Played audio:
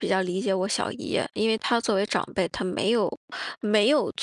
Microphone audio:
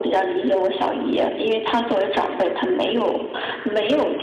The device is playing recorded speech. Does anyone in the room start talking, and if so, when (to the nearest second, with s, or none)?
none